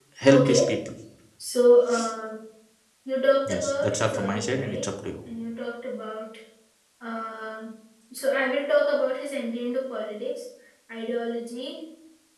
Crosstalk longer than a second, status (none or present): present